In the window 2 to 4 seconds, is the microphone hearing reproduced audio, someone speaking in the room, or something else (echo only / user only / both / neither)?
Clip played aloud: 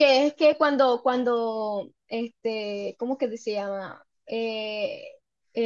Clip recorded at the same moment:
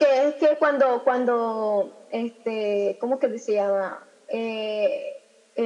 echo only